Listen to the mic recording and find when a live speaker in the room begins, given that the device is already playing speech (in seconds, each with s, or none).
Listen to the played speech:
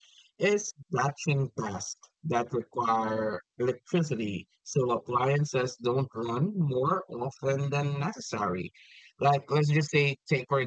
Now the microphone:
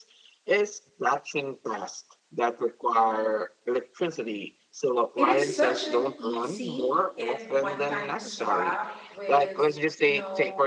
5.2 s